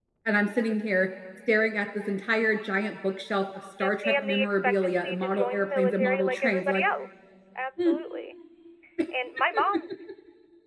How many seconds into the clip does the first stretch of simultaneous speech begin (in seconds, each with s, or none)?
3.8 s